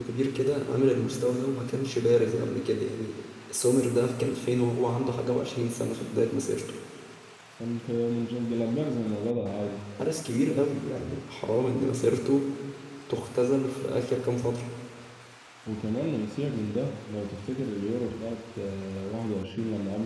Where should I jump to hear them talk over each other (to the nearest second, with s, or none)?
none